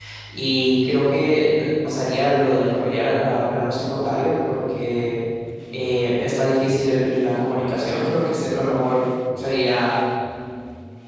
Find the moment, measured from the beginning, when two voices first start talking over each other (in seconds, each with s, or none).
none